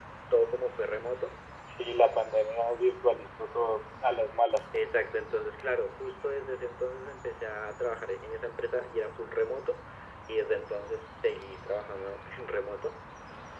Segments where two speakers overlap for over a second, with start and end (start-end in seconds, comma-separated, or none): none